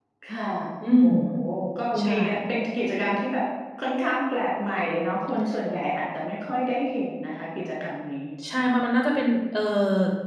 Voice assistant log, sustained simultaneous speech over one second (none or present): none